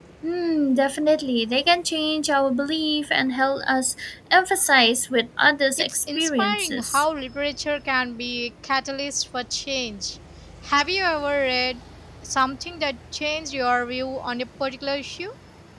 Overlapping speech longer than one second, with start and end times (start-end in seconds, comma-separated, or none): 5.8-7.0